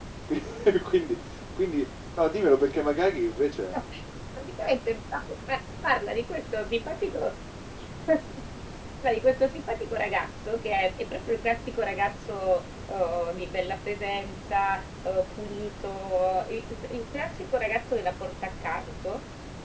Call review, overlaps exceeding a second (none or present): none